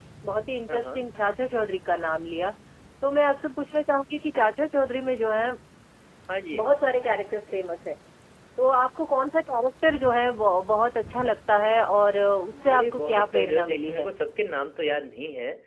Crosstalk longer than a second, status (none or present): present